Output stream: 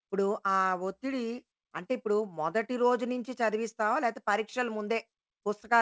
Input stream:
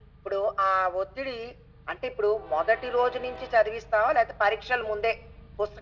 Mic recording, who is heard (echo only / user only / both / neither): echo only